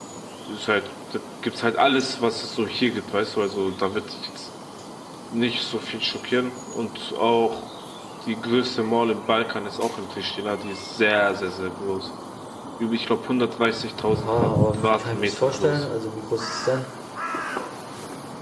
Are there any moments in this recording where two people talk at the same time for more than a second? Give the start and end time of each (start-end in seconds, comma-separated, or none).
14.1-15.8